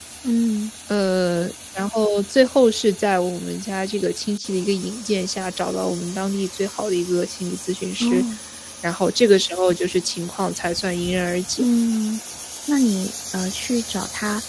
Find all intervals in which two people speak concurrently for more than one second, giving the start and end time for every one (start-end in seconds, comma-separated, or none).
none